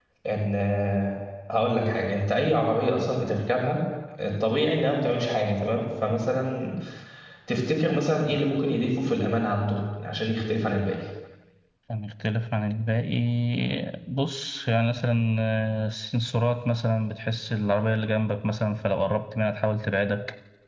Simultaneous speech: No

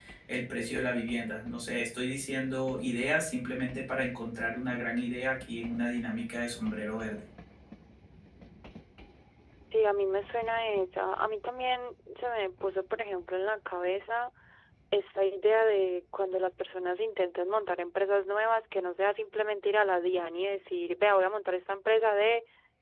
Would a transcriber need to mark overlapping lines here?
No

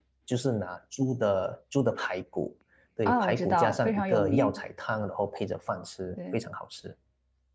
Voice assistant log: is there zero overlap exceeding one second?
No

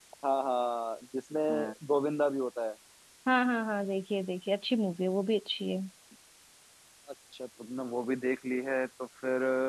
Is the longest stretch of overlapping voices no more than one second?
Yes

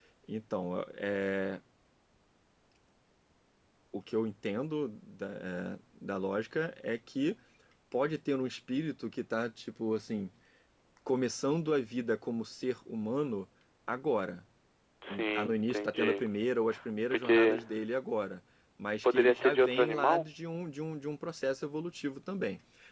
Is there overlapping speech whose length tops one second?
Yes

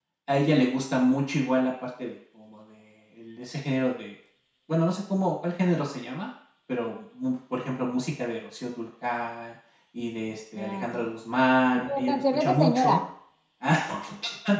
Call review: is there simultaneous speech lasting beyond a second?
Yes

